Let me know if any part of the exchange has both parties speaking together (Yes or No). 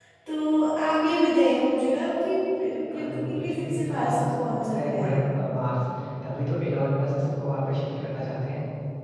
Yes